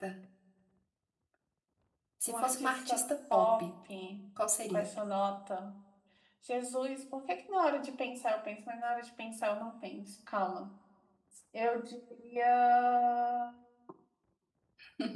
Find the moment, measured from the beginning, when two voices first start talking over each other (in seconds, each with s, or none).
2.3 s